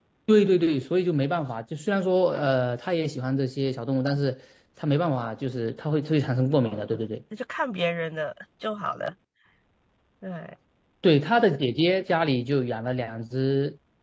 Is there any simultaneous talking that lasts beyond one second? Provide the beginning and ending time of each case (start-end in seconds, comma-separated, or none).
none